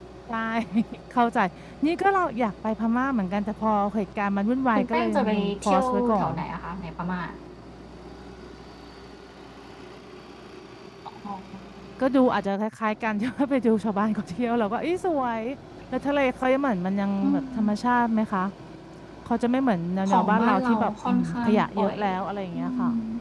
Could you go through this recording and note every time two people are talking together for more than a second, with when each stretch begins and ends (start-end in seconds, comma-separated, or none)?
4.8-6.3, 20.1-22.0